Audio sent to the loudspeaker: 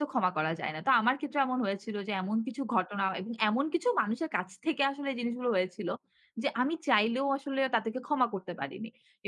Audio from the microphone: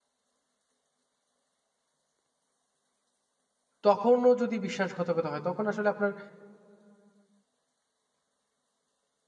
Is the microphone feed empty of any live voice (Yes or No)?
No